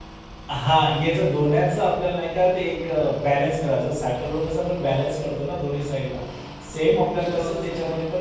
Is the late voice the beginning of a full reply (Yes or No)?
No